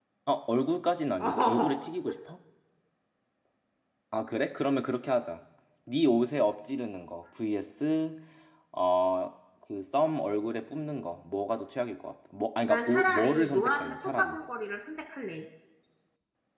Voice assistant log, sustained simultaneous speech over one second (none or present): present